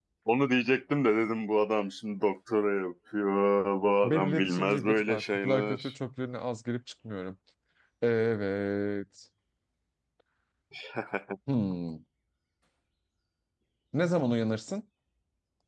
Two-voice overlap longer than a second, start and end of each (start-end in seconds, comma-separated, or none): 4.0-5.9